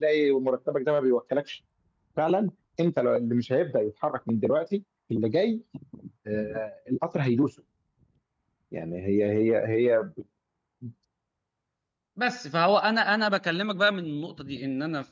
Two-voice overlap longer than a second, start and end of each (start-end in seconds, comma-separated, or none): none